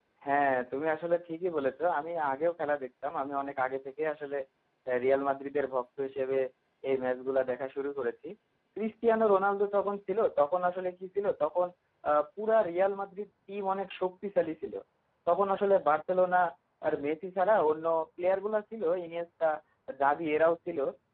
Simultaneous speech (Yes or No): No